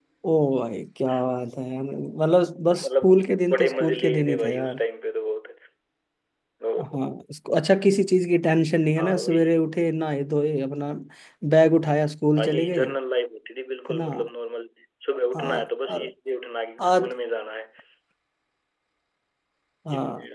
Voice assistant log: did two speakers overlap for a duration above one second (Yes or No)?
Yes